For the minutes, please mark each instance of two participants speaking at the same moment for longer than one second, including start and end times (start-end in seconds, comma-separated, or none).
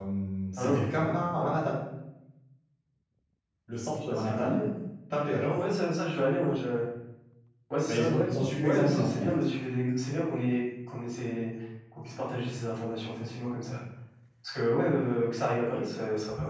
7.9-9.4